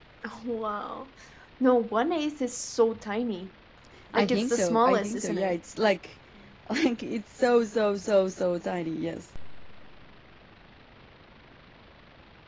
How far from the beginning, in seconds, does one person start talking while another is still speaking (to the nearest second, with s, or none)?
4 s